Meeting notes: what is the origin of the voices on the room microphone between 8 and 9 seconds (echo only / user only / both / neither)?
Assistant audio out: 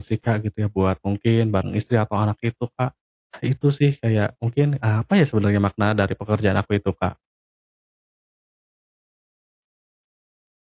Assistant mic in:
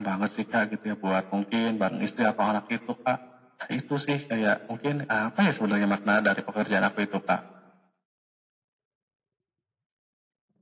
neither